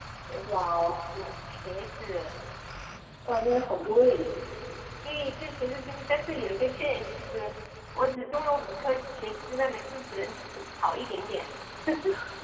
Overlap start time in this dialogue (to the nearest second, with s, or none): none